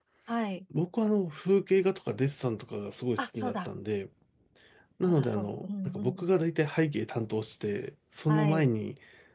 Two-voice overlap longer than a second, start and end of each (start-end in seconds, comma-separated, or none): 5.0-6.3